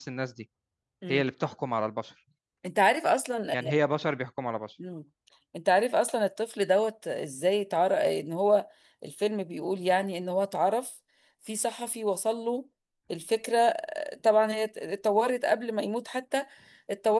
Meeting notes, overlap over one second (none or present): none